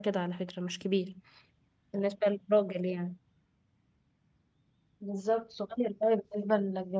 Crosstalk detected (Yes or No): No